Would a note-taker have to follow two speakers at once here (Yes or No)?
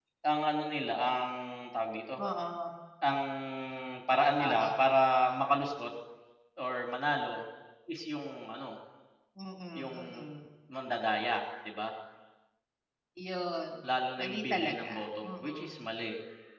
Yes